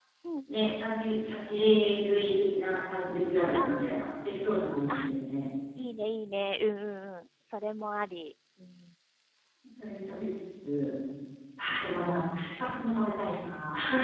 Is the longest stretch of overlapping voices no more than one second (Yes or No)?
Yes